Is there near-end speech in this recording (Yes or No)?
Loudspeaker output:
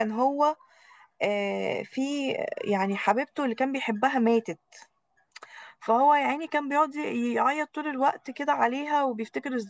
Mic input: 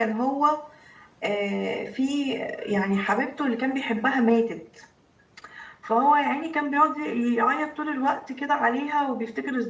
No